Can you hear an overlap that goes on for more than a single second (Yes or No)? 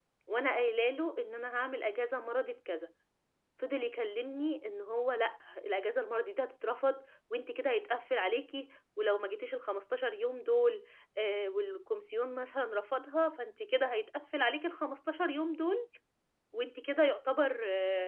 No